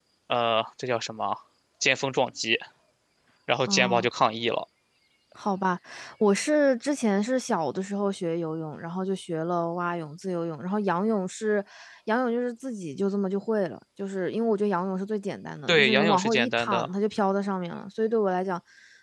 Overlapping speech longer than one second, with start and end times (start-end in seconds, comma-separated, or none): 15.7-16.9